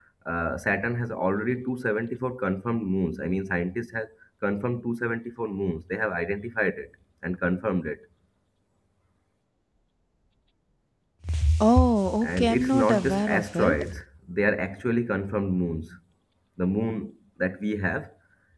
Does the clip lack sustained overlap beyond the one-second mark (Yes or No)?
No